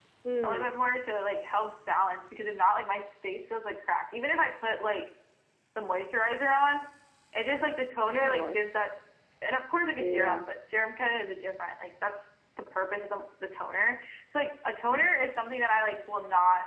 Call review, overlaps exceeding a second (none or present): none